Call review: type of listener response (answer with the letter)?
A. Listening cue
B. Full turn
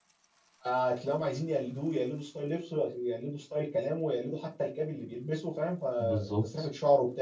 A